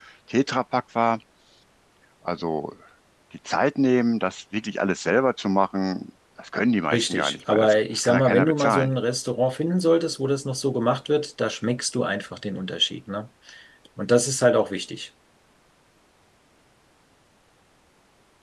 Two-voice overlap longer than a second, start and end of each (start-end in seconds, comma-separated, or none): 6.9-8.9